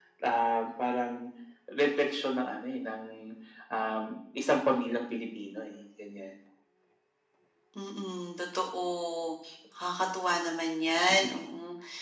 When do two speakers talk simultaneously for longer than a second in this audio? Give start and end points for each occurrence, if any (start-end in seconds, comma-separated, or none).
none